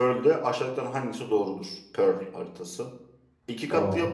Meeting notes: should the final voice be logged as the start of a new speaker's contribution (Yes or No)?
No